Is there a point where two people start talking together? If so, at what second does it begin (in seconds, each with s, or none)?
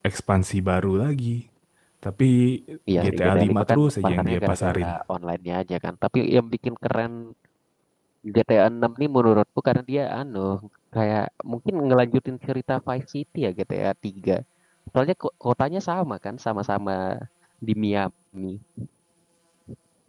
3.0 s